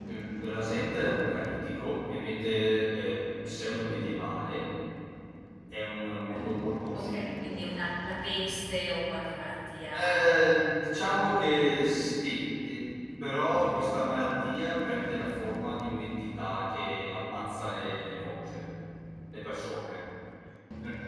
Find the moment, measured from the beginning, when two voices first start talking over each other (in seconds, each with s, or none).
6.3 s